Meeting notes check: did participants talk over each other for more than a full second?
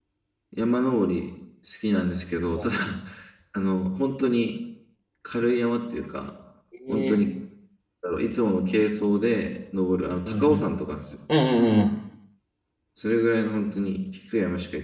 No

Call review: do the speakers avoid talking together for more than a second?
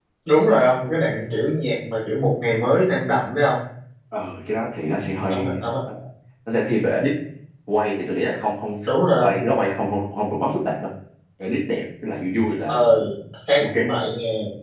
Yes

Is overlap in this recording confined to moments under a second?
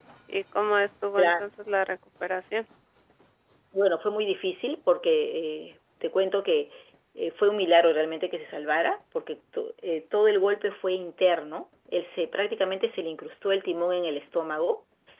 Yes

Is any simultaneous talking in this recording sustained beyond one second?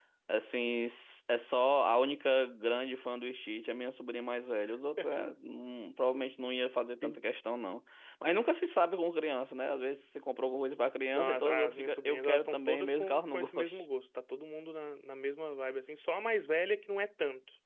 Yes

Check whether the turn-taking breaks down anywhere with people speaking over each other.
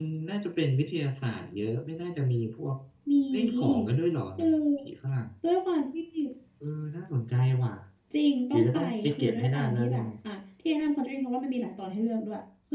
Yes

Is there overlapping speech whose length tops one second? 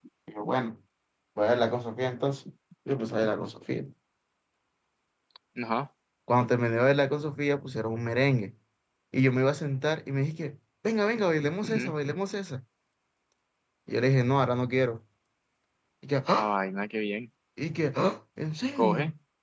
No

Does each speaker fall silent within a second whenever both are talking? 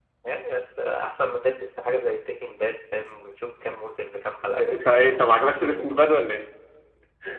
Yes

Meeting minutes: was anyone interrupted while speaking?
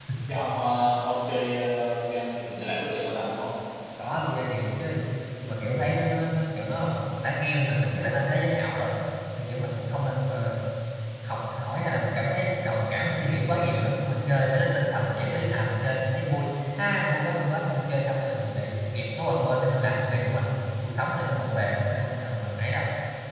No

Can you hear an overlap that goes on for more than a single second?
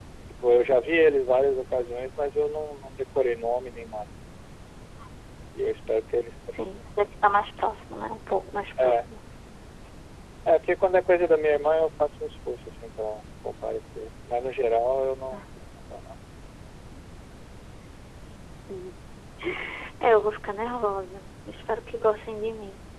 No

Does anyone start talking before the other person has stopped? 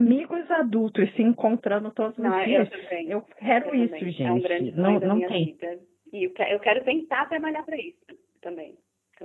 Yes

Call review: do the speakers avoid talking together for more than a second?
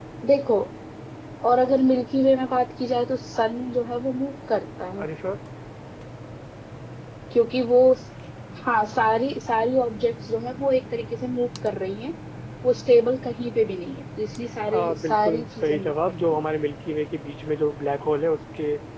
No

